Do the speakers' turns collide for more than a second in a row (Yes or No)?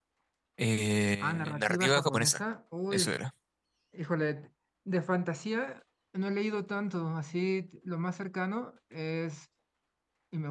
Yes